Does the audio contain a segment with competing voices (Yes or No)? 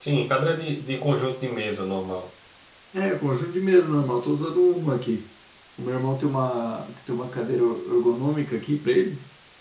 No